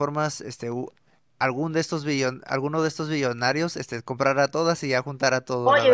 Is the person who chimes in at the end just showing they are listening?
No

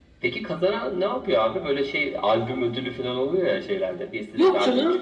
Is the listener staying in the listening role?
No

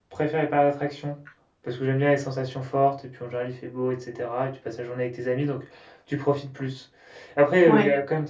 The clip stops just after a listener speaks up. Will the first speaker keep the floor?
Yes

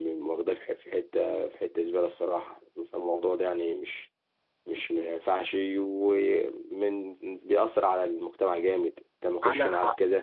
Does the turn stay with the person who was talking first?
Yes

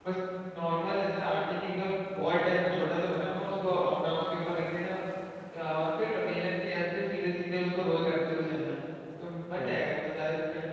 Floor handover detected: No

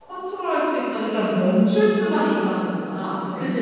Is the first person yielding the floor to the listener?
Yes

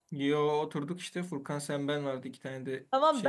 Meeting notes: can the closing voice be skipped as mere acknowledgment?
No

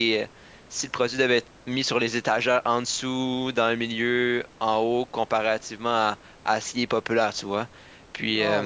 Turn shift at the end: Yes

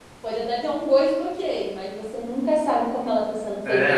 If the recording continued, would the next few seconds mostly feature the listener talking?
Yes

